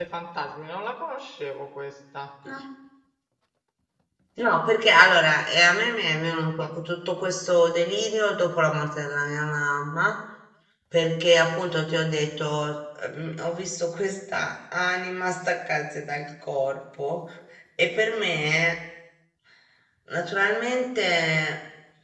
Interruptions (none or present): none